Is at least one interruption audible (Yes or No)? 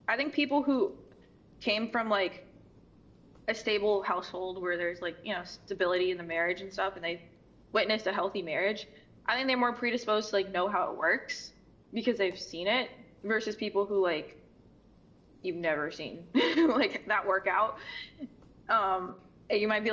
No